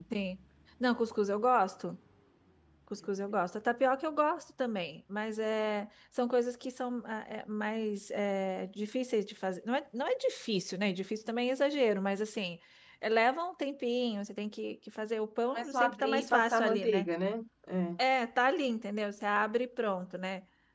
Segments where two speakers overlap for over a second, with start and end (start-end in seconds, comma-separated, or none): 15.5-17.1